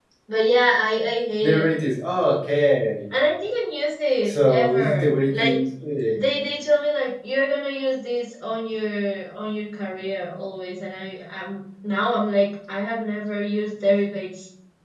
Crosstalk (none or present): present